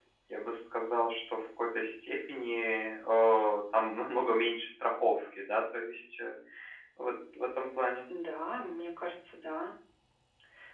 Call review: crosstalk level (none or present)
none